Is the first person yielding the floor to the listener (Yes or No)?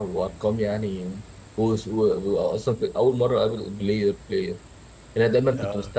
No